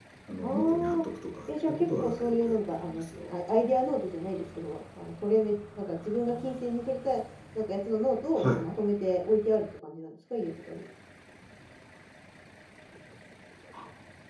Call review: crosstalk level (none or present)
present